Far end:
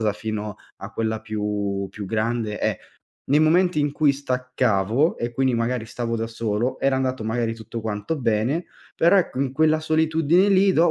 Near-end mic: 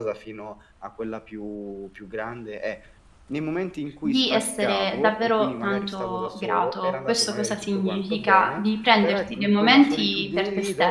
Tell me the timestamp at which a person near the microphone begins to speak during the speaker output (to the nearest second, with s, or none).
4 s